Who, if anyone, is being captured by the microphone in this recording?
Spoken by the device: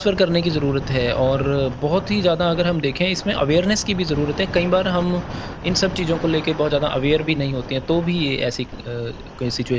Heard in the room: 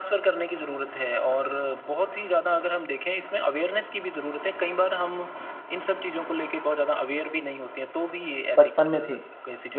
both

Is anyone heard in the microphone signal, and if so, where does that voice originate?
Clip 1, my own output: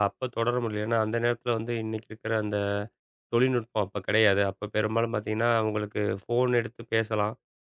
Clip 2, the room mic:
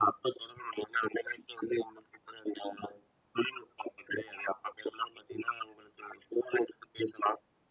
echo only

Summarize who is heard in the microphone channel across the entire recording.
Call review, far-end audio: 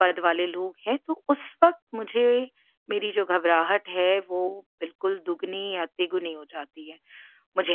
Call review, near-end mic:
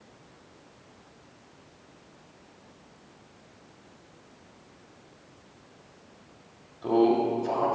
user only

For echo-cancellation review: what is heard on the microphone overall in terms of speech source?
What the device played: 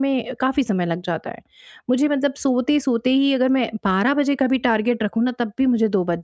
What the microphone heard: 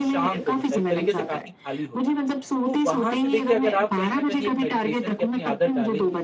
both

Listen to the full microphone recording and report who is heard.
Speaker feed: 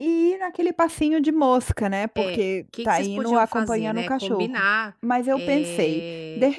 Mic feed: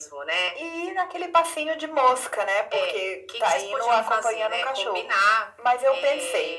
echo only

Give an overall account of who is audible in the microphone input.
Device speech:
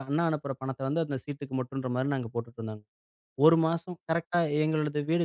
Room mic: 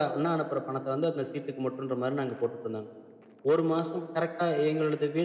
echo only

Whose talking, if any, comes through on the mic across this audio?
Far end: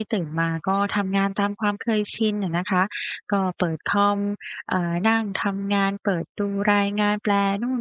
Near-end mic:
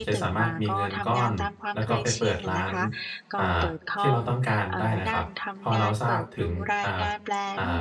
both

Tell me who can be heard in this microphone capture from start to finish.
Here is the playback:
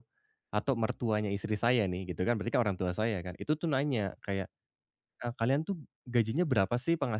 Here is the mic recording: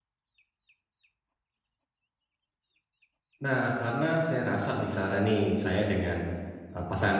user only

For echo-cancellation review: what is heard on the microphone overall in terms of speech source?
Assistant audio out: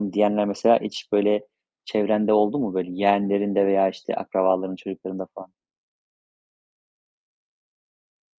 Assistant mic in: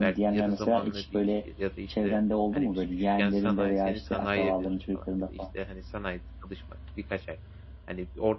both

